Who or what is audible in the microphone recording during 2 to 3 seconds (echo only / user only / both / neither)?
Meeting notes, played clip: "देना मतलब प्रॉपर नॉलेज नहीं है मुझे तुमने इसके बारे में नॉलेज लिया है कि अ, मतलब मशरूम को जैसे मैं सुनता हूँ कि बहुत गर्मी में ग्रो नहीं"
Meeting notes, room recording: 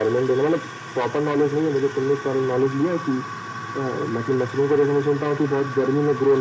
echo only